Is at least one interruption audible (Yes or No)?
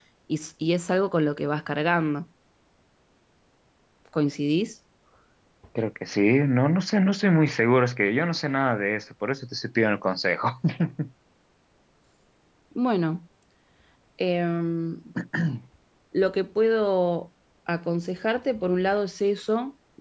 No